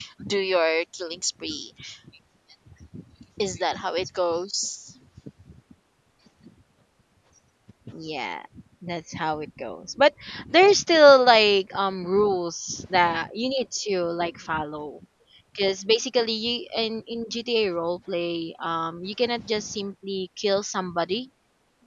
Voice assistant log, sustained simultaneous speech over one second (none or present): none